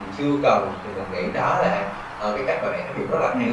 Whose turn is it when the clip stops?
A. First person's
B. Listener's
B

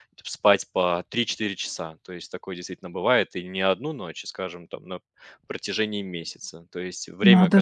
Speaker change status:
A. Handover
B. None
B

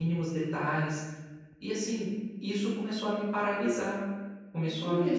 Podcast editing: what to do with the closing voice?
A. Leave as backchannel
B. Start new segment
B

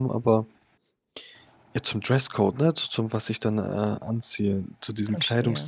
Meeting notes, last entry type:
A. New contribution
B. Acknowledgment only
B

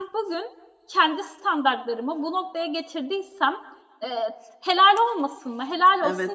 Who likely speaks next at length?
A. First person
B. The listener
B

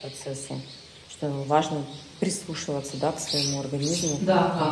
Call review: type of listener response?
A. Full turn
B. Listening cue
A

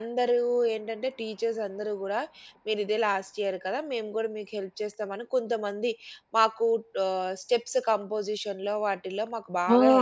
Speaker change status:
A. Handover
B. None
A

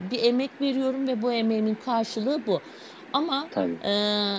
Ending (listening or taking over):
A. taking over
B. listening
B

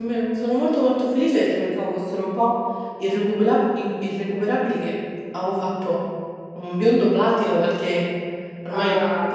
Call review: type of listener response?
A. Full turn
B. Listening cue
B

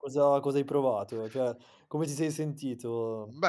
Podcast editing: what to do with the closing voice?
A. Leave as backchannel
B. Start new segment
B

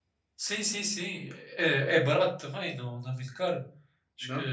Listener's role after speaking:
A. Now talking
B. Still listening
B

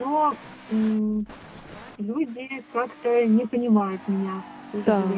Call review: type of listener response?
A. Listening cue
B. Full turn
B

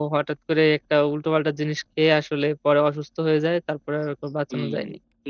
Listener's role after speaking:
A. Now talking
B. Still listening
A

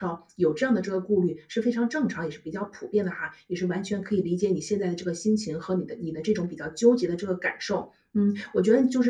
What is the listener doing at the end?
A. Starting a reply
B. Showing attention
B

